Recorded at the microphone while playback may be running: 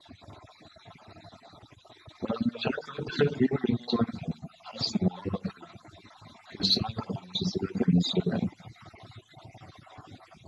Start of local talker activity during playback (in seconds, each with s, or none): none